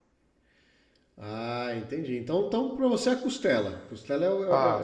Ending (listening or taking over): taking over